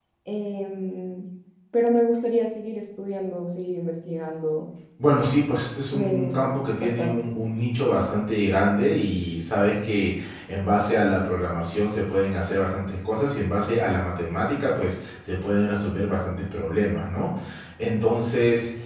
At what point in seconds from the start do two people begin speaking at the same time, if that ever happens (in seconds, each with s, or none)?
5.9 s